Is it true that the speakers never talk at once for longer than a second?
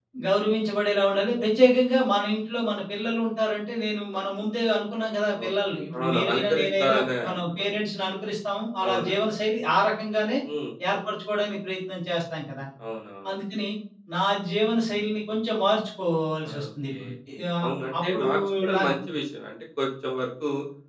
No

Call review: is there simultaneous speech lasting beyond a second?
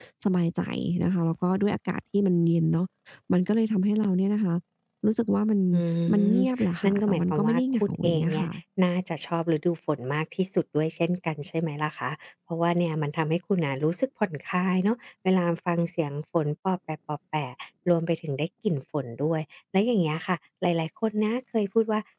Yes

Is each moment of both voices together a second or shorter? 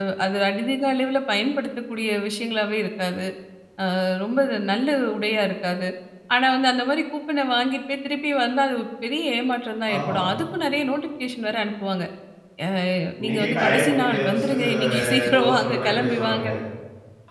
No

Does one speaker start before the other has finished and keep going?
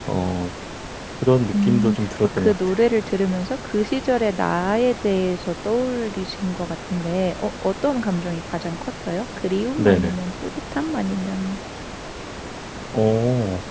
Yes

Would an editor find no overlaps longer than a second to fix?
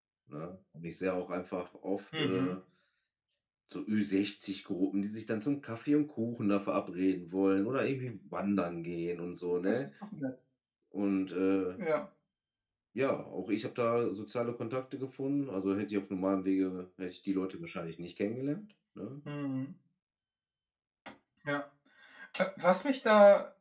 Yes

